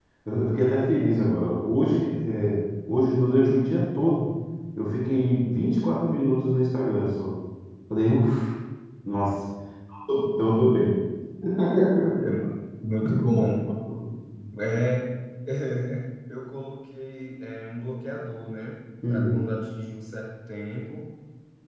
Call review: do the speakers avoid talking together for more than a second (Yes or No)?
Yes